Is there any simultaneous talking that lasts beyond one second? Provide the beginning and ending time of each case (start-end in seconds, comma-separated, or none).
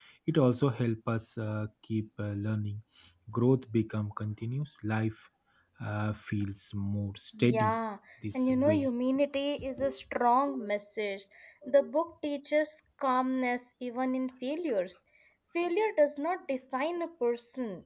none